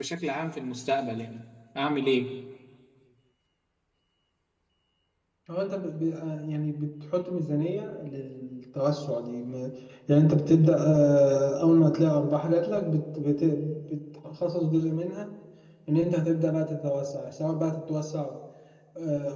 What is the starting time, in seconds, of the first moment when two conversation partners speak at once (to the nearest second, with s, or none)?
none